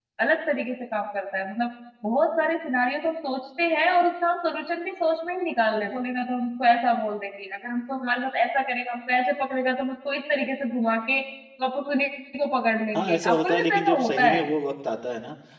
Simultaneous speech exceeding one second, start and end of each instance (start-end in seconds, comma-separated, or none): 12.9-14.4